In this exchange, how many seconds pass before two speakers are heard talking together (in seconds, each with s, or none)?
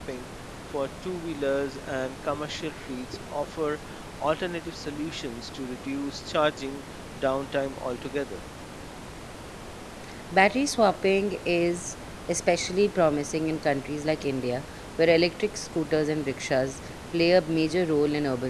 none